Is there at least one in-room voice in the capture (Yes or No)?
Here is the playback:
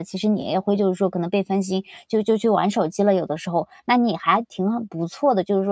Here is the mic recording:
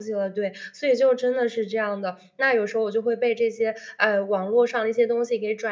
Yes